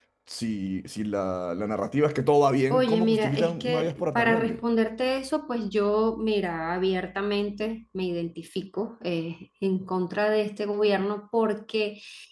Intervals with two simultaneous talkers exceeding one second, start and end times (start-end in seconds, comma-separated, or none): 2.7-4.6